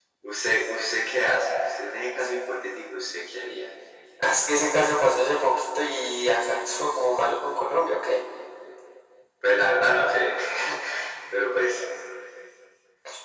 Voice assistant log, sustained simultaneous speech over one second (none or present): none